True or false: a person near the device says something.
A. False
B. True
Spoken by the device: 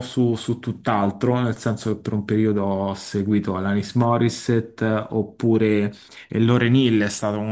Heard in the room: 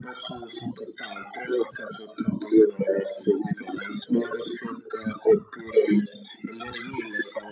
A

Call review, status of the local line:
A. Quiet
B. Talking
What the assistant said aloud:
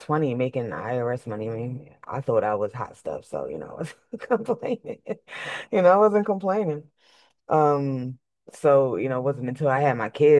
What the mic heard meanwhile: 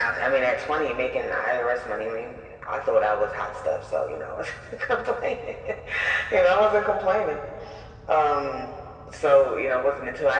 A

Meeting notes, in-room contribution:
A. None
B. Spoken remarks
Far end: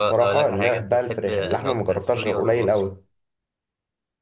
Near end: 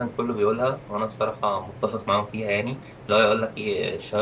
B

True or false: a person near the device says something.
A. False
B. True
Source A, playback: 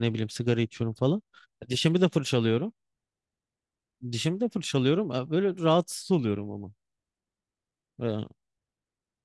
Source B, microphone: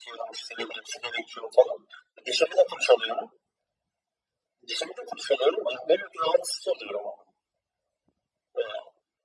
A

